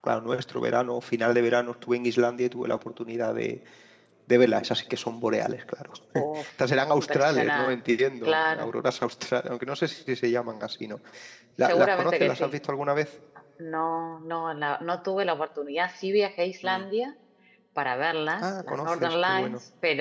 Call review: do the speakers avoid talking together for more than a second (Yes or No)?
No